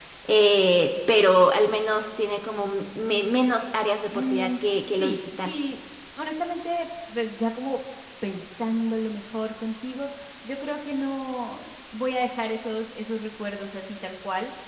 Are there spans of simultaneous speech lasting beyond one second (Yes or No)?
Yes